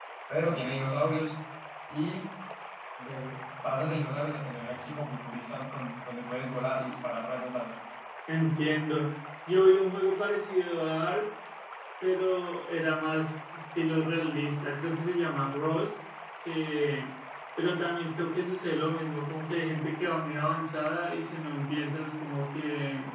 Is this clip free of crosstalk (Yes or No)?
Yes